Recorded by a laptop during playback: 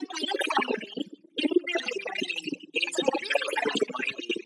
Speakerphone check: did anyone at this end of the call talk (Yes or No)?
No